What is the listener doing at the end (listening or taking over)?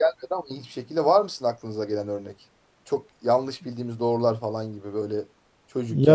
taking over